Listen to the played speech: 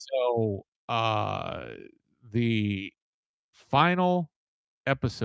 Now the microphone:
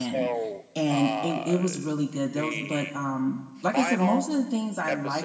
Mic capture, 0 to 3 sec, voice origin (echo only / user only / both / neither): both